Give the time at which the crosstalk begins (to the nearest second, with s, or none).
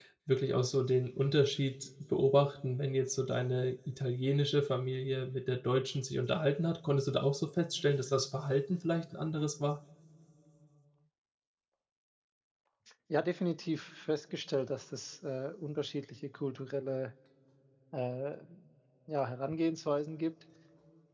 none